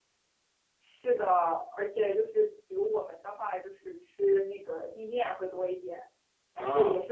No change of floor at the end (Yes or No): Yes